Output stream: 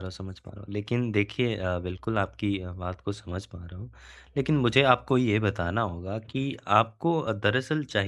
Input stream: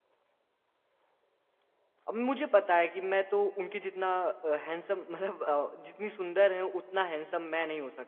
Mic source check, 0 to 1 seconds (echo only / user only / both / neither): neither